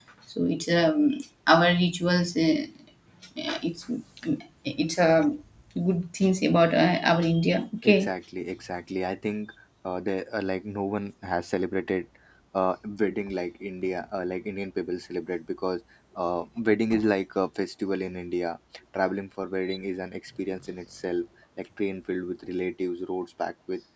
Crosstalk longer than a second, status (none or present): none